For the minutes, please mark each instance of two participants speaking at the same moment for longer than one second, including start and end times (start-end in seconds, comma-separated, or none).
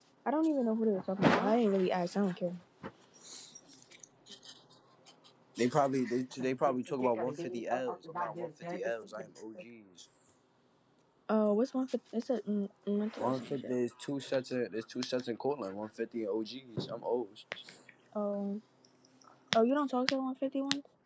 6.4-9.3